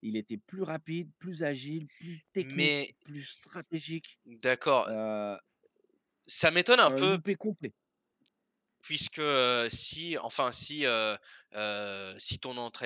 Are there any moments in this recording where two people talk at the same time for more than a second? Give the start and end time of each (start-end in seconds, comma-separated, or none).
none